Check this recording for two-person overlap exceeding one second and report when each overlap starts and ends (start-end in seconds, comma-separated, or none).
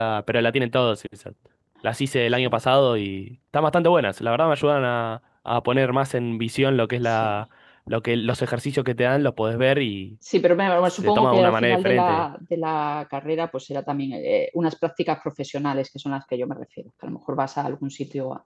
11.0-12.2